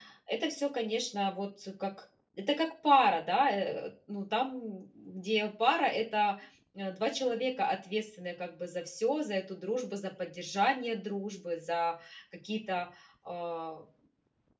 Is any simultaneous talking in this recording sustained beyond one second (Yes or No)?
No